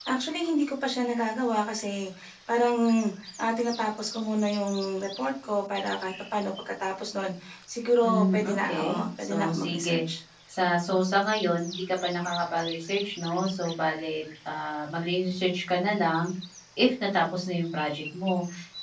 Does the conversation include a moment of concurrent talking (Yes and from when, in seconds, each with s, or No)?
Yes, from 8.0 s